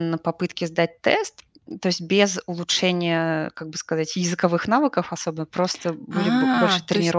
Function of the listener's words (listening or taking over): taking over